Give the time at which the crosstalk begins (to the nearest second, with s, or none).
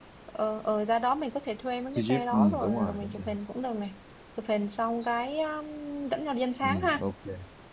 2 s